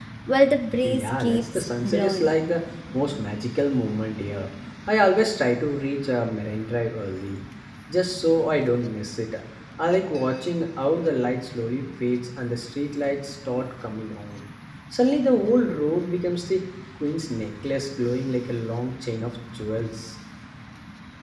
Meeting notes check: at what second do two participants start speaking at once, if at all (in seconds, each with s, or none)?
0.8 s